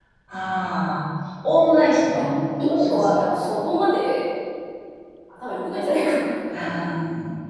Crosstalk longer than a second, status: none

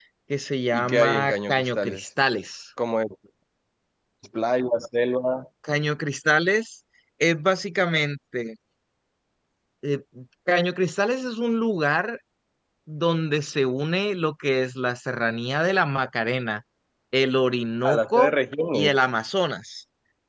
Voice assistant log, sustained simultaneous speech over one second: present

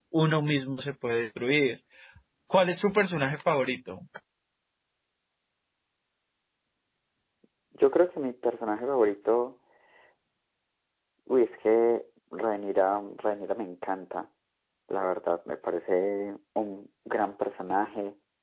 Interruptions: none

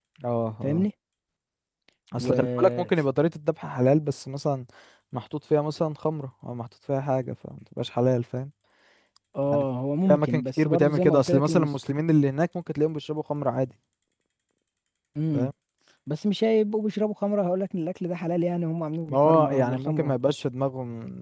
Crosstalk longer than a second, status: present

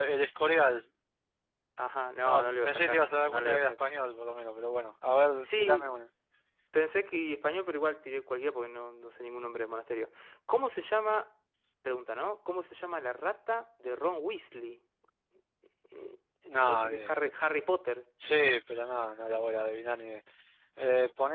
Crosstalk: present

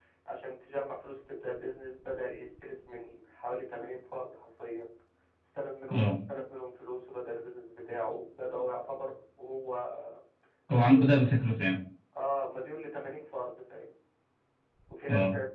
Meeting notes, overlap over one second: none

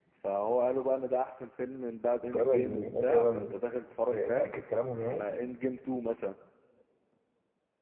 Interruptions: present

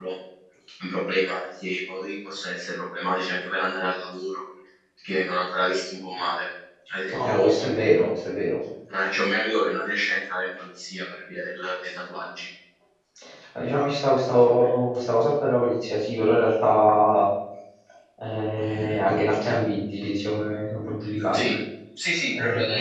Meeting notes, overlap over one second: none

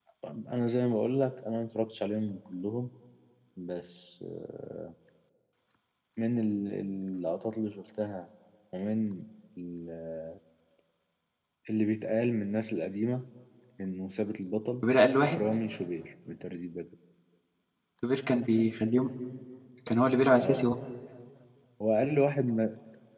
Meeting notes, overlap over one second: none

